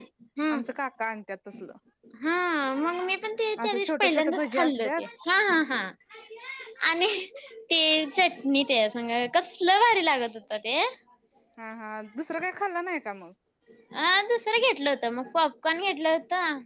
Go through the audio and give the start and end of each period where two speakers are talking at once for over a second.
3.6-4.9

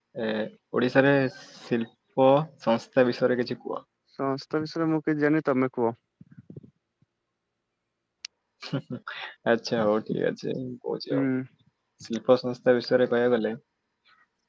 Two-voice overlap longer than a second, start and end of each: none

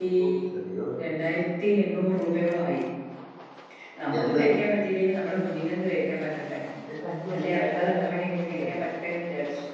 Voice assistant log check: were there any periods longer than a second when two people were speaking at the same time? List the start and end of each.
7.3-8.8

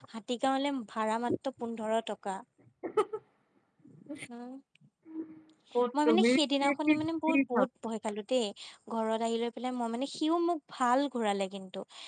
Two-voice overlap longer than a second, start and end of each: 6.1-7.7

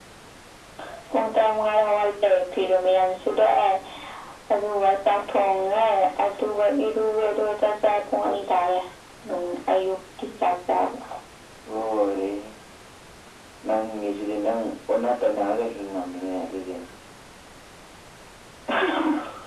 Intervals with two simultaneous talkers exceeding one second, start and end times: none

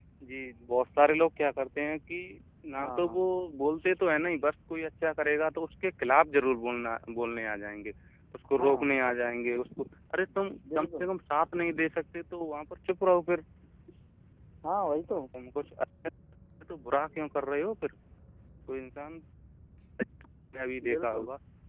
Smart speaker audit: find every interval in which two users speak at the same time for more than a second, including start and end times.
none

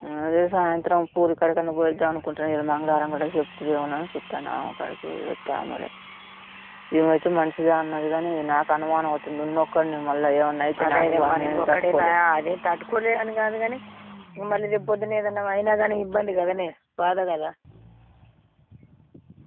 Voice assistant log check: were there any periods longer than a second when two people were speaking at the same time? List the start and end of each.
10.8-12.2

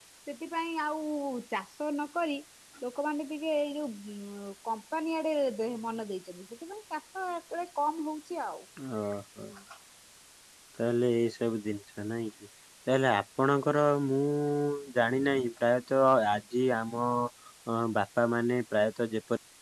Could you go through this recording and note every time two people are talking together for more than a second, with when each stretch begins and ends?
none

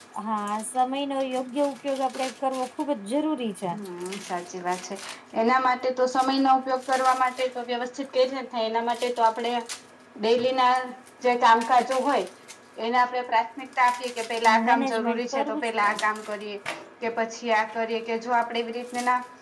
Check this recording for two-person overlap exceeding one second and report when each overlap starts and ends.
14.7-16.0

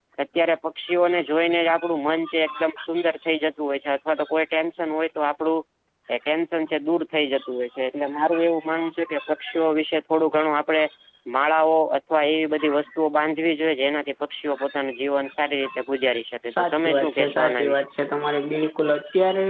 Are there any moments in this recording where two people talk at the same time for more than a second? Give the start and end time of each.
16.5-17.8

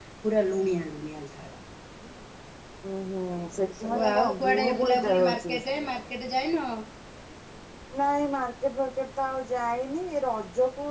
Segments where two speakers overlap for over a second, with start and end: 3.3-5.8

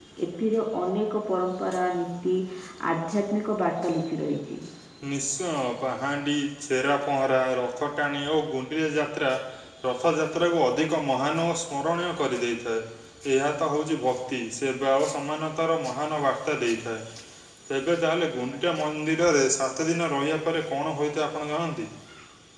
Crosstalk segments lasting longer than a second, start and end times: none

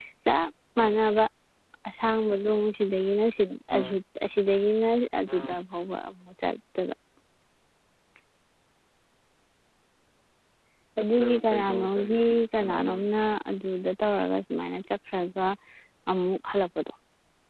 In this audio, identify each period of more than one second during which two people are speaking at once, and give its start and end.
11.0-13.1

